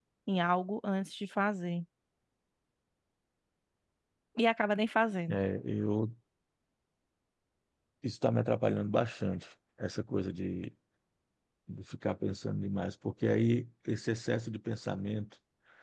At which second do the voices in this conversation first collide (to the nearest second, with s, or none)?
none